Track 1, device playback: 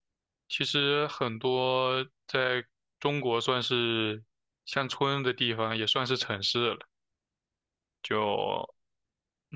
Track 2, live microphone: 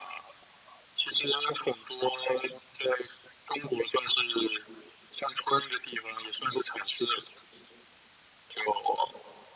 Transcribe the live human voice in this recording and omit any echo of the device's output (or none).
none